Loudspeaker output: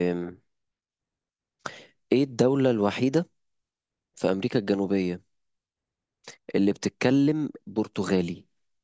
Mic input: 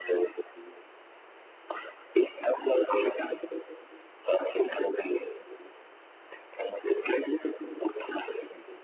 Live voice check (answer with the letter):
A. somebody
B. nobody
B